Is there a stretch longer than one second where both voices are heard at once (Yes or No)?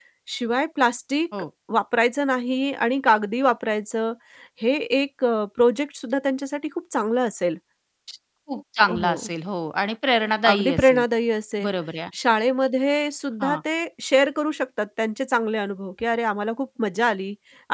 No